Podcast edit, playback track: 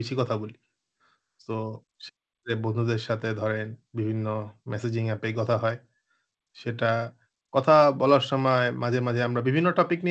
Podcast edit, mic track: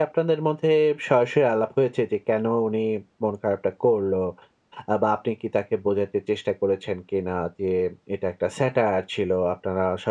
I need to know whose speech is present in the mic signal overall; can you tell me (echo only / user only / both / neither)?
user only